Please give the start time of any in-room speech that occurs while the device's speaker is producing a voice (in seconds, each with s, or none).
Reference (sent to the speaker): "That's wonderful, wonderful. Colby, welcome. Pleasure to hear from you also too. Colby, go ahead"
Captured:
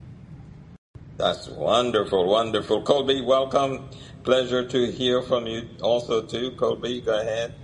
none